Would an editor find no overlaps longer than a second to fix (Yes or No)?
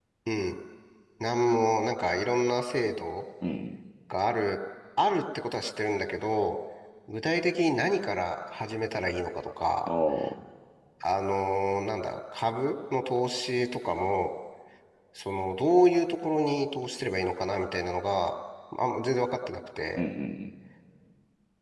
Yes